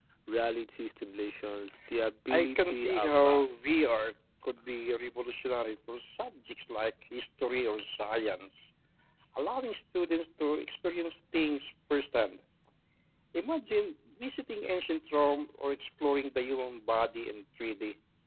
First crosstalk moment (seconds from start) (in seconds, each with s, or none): 2.3 s